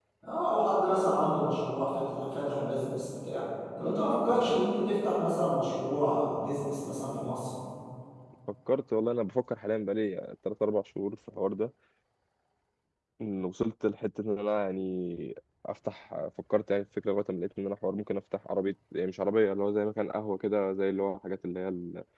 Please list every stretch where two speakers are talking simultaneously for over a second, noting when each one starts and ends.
none

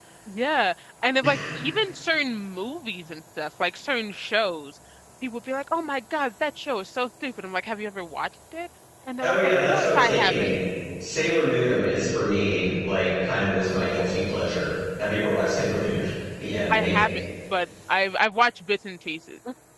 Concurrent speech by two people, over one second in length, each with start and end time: 9.2-10.5

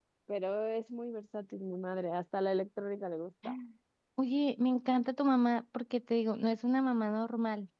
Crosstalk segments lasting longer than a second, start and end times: none

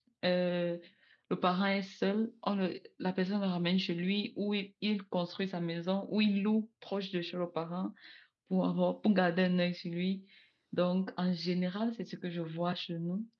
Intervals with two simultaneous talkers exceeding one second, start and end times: none

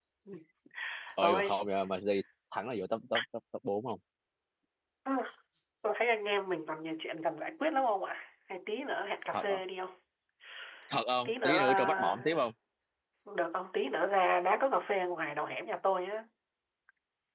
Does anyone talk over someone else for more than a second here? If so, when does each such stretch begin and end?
11.2-12.4

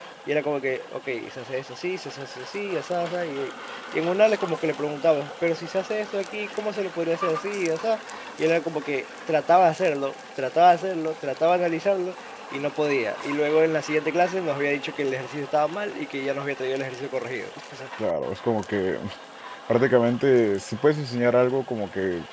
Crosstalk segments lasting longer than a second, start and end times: none

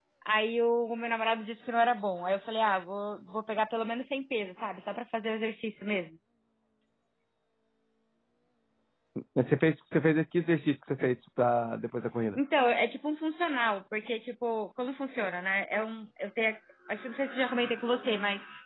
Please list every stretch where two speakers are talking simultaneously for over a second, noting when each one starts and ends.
none

